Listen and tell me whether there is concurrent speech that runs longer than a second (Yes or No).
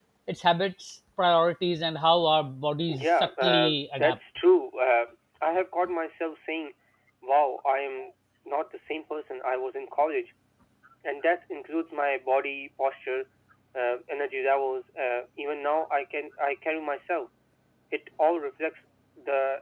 Yes